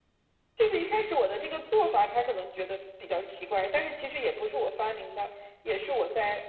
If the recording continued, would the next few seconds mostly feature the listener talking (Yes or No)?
No